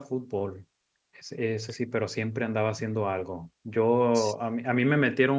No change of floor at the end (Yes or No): Yes